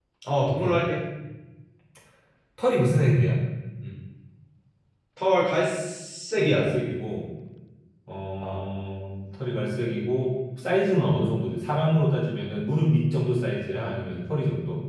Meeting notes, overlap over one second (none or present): none